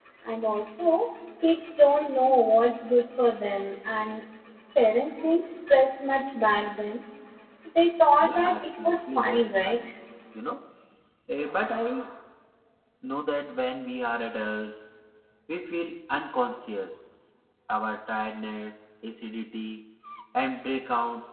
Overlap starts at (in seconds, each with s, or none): 8.2 s